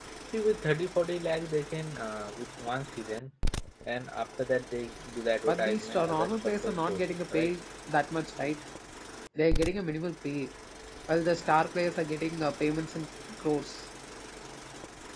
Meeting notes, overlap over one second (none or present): present